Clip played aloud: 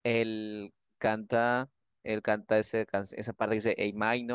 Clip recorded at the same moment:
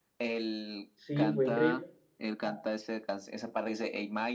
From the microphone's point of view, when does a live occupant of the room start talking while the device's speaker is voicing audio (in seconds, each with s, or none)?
0.9 s